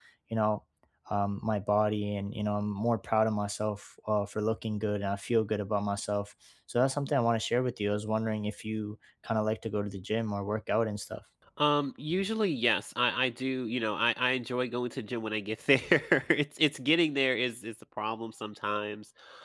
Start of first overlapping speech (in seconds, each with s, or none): none